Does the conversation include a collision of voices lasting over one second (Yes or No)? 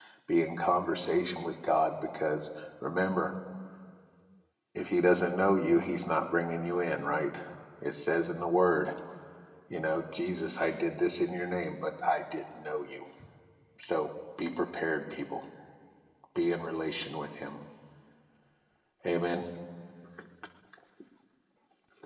No